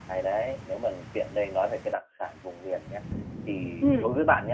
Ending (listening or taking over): listening